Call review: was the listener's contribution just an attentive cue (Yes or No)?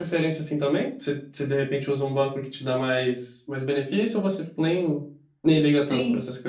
No